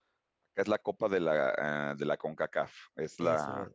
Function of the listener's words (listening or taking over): listening